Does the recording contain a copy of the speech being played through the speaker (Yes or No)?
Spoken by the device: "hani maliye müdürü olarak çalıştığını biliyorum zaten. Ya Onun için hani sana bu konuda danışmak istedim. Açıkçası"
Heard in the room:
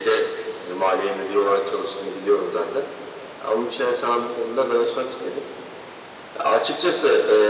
Yes